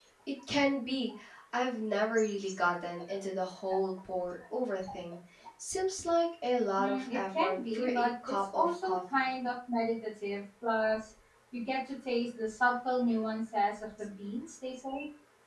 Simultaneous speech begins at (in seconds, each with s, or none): 6.8 s